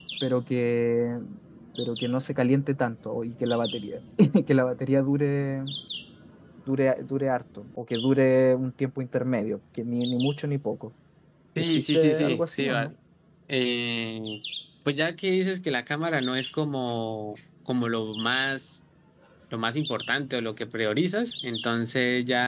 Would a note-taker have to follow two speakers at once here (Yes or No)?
Yes